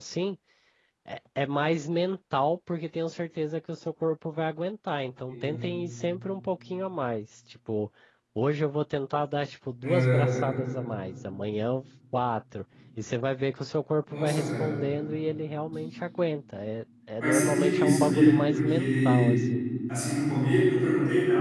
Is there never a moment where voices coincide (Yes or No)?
No